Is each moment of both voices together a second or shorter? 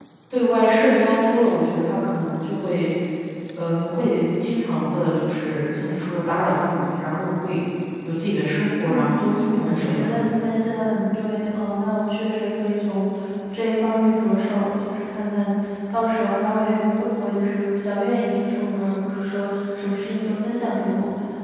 Yes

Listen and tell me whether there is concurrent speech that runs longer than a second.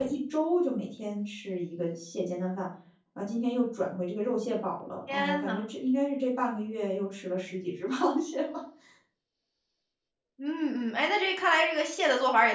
No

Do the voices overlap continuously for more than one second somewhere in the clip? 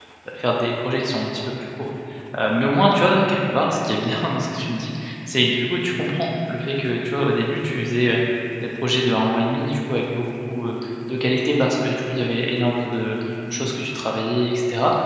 No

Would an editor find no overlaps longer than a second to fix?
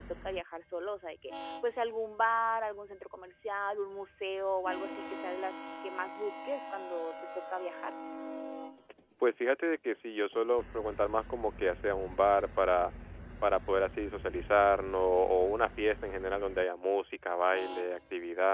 Yes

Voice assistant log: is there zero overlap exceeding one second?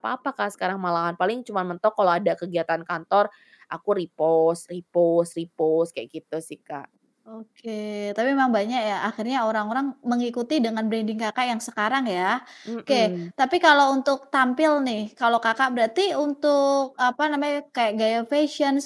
Yes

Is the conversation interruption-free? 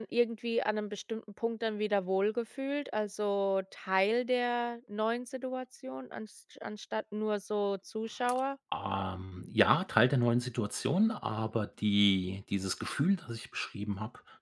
Yes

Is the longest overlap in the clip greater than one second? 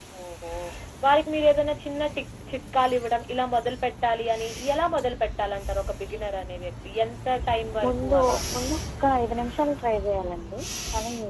No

